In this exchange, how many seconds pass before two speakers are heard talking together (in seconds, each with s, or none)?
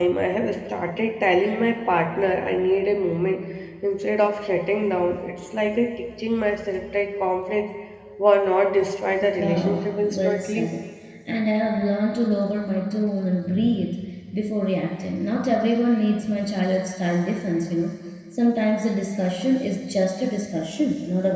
9.2 s